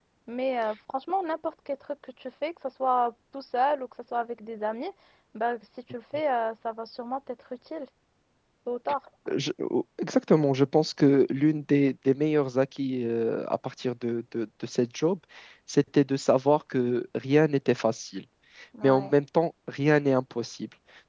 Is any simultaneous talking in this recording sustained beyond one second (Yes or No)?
No